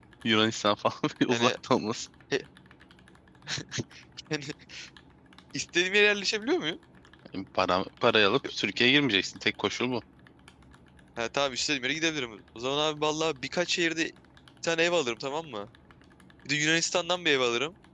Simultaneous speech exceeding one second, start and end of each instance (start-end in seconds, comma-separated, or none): none